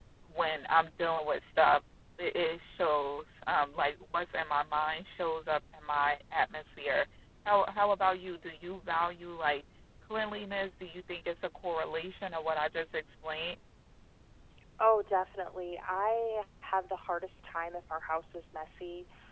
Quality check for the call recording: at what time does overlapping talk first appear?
none

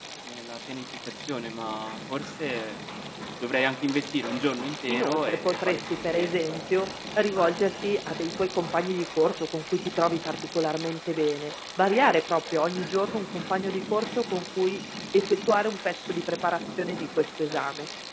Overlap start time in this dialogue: 4.9 s

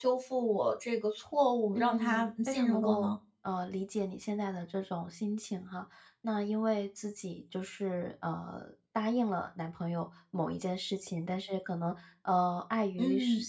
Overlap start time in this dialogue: 1.8 s

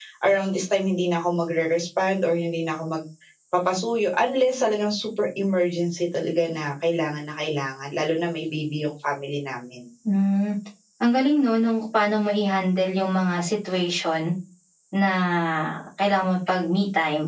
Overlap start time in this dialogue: none

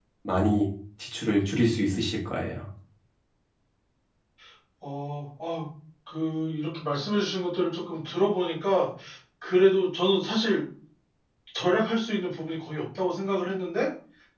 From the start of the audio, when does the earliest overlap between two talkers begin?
none

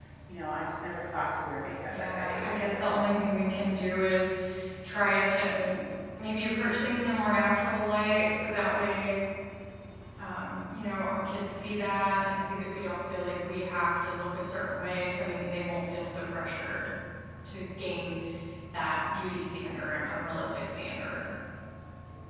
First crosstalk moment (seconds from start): 1.9 s

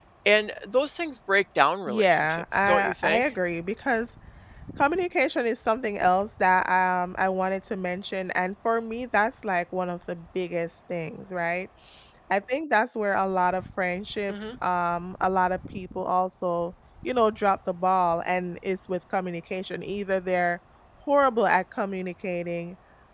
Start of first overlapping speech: 1.9 s

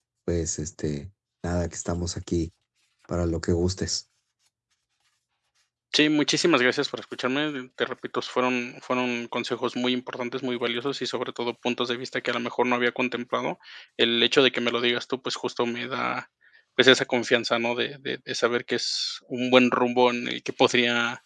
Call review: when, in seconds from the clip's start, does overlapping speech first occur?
none

